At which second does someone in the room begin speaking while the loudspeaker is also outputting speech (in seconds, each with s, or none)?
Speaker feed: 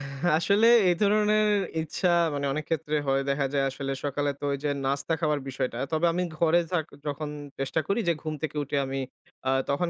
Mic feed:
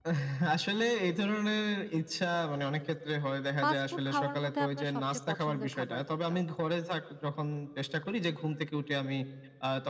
3.6 s